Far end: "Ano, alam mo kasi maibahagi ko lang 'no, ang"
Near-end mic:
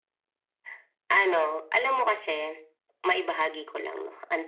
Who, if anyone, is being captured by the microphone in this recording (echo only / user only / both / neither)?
echo only